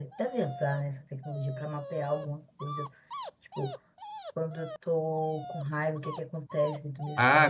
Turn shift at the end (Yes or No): Yes